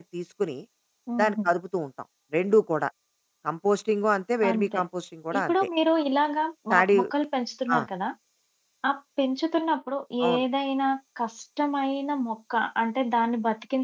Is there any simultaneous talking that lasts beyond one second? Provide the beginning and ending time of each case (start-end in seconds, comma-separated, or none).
none